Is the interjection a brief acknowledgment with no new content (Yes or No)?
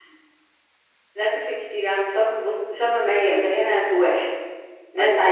Yes